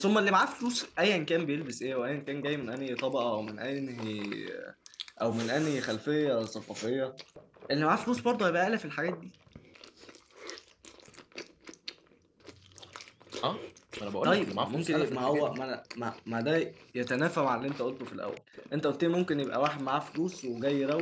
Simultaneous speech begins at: 14.2 s

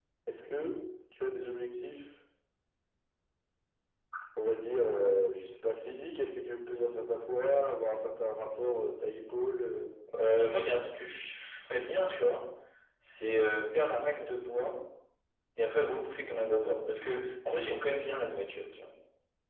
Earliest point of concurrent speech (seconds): none

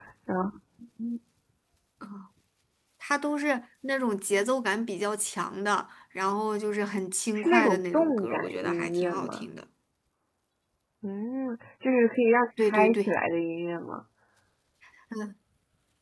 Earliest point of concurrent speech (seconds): 7.3 s

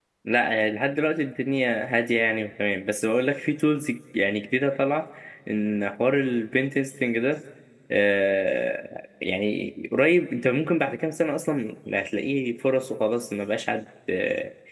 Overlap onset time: none

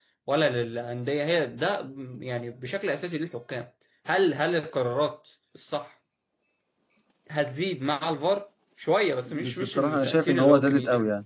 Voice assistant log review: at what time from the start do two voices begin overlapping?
9.3 s

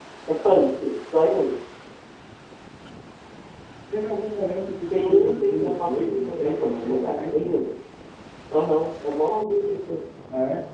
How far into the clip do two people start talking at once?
4.9 s

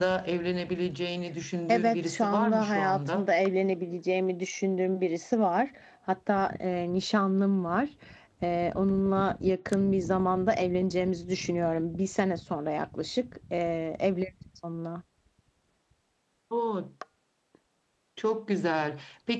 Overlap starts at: 1.7 s

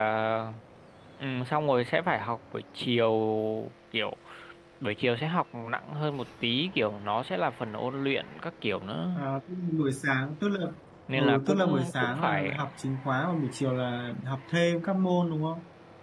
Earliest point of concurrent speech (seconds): 11.2 s

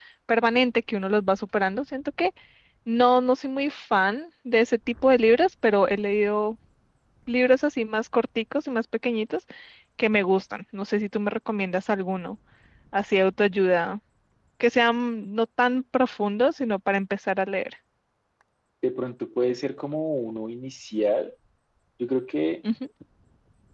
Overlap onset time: none

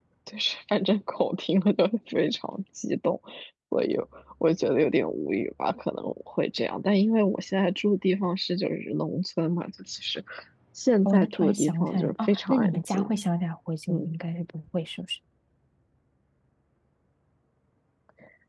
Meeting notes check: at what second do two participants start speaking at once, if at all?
11.0 s

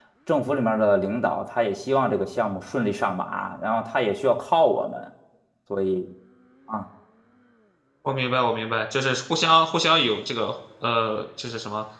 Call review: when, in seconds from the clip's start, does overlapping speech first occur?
none

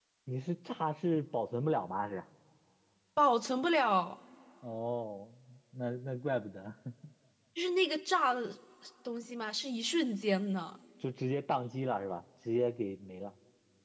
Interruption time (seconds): none

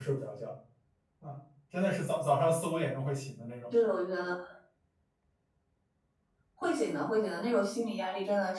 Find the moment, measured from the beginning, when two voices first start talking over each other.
none

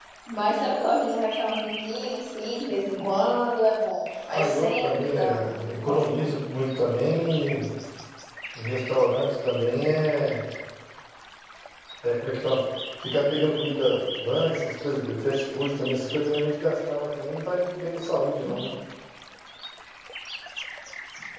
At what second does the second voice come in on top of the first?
4.3 s

